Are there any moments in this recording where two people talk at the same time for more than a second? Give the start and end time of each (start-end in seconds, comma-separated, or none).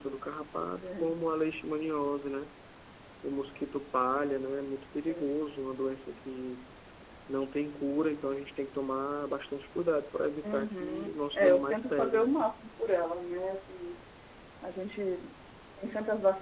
10.4-12.3